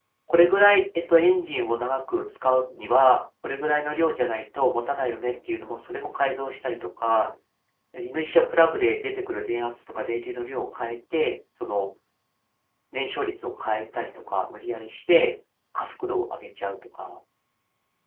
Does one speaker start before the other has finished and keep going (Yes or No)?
No